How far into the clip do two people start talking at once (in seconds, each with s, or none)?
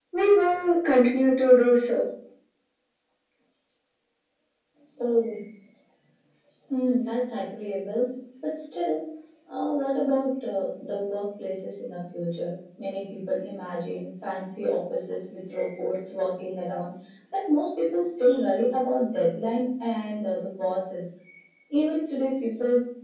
none